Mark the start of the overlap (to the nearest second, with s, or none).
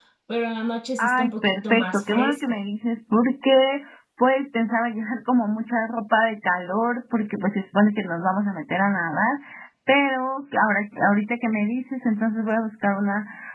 1 s